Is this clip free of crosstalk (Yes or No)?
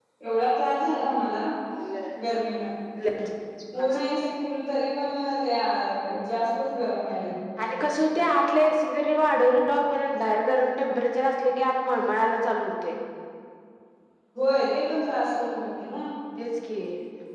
Yes